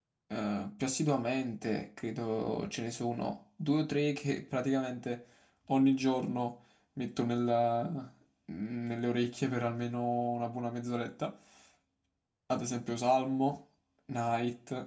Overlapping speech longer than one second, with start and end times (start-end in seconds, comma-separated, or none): none